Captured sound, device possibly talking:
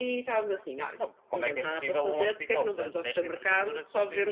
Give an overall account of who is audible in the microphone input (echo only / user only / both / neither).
both